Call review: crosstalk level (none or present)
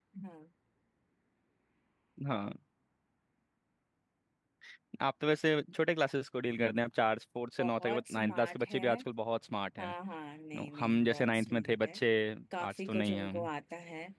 present